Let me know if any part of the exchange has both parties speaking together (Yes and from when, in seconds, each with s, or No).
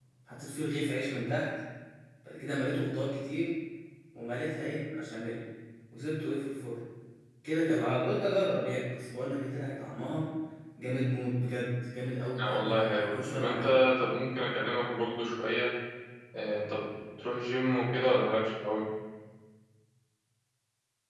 Yes, from 12.4 s